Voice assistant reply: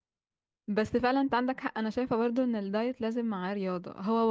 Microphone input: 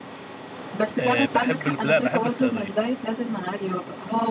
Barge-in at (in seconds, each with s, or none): 1.0 s